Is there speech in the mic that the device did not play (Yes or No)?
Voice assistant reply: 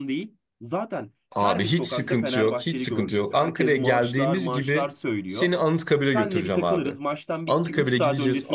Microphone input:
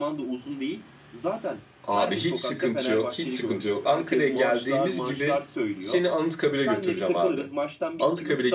No